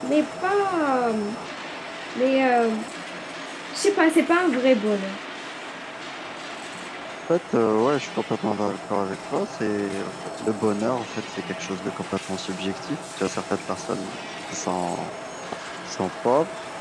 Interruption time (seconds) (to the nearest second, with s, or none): none